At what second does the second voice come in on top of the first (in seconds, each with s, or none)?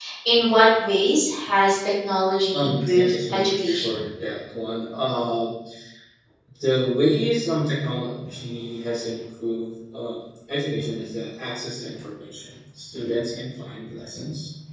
2.5 s